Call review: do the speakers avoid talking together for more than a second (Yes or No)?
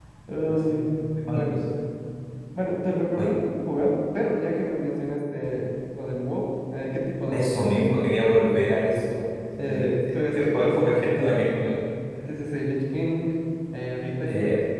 No